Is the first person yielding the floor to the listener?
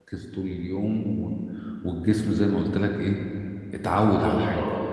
Yes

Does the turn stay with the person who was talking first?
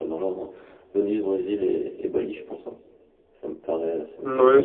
No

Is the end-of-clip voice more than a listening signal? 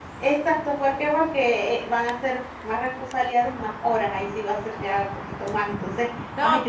Yes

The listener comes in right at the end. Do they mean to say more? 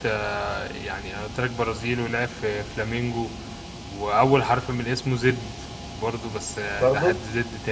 No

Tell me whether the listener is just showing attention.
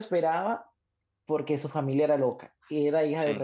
Yes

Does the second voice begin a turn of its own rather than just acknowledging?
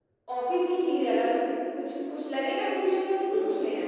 Yes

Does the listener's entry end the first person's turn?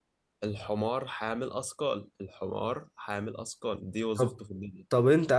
Yes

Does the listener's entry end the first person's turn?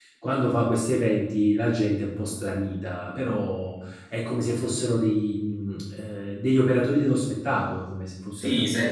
Yes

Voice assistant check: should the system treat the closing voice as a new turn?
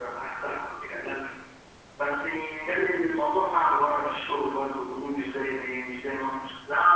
Yes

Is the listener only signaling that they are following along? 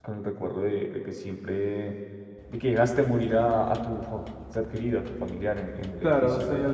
No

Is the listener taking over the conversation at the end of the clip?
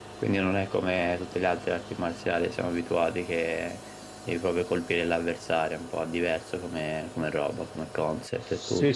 Yes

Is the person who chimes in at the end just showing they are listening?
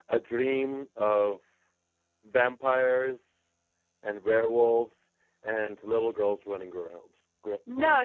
No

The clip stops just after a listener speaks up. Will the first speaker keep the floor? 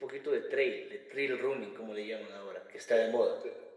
No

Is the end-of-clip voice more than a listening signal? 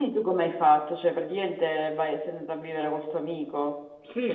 Yes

